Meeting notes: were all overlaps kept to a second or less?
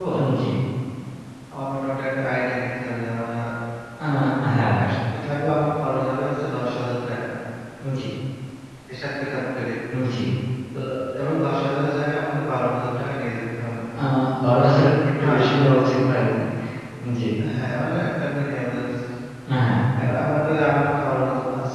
Yes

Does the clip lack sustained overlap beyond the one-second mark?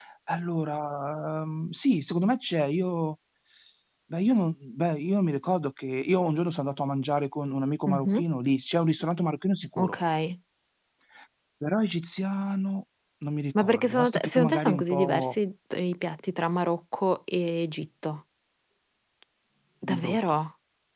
No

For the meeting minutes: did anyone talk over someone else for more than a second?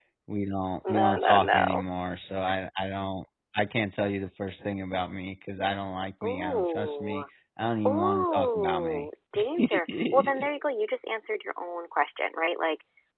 Yes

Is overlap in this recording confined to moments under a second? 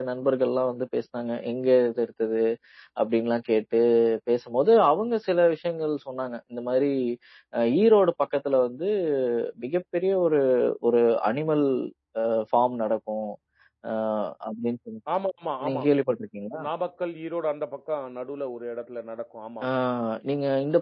Yes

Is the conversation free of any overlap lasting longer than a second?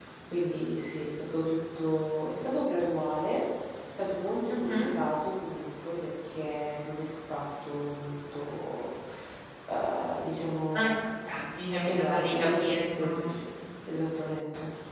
No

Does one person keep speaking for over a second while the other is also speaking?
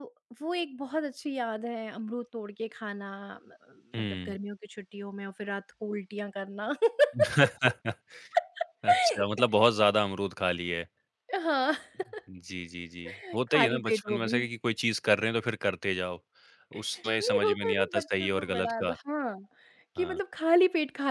Yes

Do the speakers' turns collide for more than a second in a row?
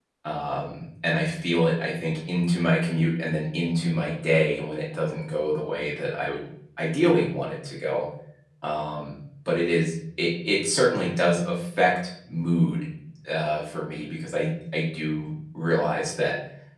No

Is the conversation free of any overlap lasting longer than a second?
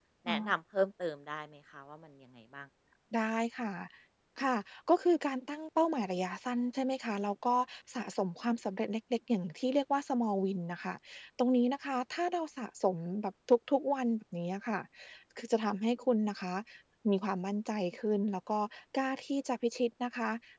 Yes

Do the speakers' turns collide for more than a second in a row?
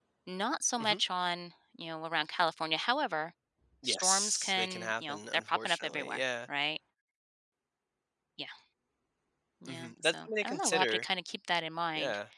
Yes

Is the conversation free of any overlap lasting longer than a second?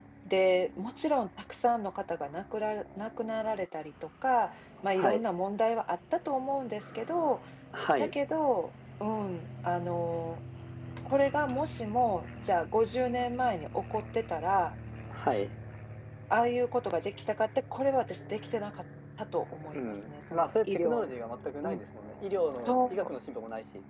No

